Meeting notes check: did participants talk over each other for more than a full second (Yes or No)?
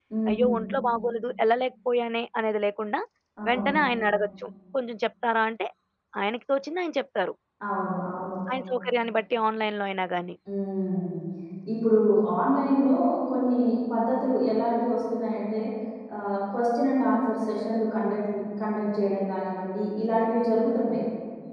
No